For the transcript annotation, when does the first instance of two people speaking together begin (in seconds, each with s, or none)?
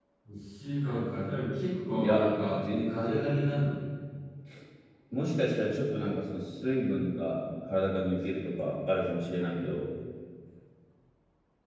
2.0 s